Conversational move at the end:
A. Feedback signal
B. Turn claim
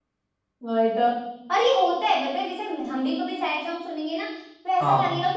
A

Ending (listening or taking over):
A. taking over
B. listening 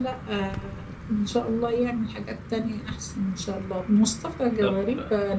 B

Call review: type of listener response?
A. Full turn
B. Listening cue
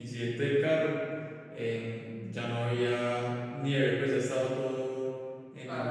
A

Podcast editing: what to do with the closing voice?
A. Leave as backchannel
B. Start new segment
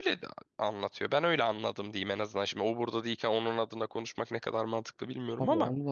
B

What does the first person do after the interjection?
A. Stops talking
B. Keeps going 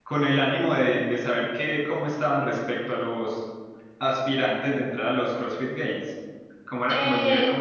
A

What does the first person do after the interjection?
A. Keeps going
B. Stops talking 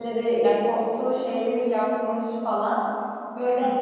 A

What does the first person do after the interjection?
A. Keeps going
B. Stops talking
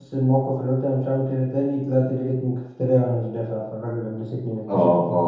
B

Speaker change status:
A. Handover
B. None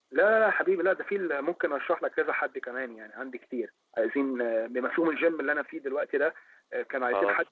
B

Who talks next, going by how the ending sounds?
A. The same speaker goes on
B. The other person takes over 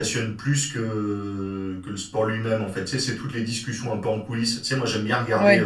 A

